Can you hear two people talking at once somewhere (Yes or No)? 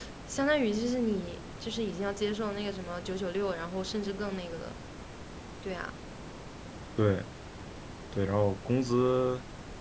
No